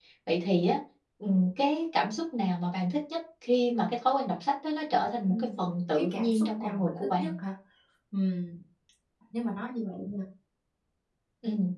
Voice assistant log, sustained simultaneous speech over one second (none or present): present